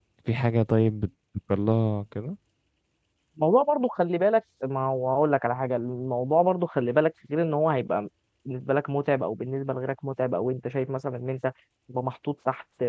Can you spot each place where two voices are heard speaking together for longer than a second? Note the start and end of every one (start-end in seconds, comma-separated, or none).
none